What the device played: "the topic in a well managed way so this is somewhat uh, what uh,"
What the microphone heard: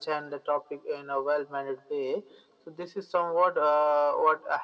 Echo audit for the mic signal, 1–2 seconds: echo only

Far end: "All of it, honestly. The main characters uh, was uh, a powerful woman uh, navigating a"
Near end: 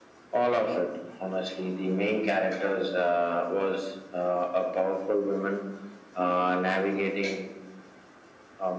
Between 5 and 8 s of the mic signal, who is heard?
echo only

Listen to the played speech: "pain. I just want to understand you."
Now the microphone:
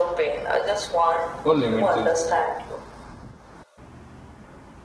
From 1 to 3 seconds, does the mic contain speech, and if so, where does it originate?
both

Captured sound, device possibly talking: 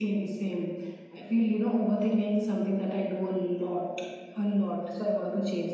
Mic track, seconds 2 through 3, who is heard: echo only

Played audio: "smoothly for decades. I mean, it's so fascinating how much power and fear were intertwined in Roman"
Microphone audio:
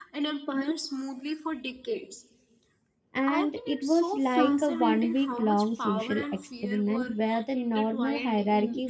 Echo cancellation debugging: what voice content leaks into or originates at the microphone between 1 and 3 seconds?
echo only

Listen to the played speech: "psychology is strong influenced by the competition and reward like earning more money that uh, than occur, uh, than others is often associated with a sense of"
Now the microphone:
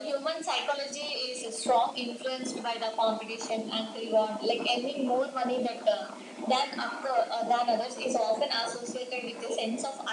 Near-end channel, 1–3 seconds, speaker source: echo only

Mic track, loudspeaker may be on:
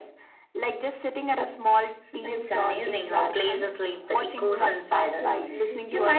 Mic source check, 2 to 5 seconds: both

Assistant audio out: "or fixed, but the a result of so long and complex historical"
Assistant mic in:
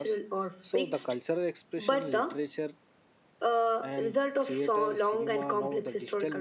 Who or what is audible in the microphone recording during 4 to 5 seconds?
both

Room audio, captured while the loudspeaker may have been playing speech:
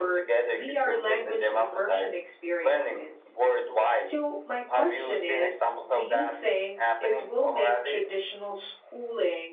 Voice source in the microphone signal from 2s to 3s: both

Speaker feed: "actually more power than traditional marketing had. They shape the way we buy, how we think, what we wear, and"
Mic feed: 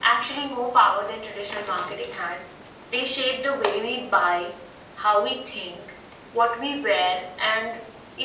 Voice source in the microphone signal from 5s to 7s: echo only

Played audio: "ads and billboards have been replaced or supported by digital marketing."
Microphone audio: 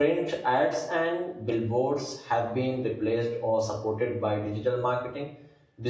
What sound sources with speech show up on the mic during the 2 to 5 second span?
echo only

